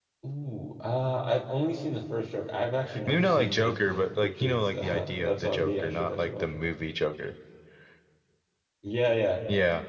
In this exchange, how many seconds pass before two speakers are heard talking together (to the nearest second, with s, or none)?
3 s